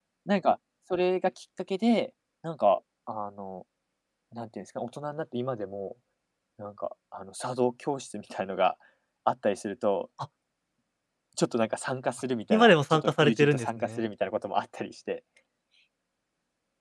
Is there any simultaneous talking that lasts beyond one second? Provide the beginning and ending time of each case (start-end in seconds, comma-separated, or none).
12.5-14.0